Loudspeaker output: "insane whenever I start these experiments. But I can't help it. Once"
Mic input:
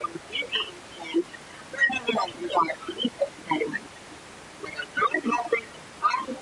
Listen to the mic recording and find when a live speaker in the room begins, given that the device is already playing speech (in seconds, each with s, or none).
none